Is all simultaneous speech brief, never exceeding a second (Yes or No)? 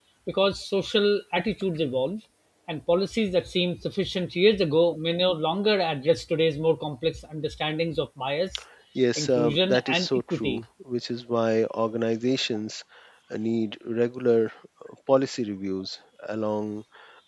No